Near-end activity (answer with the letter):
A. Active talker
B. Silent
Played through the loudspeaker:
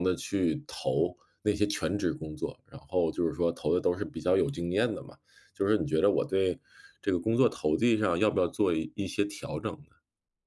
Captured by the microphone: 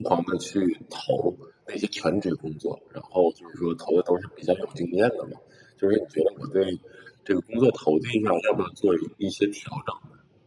B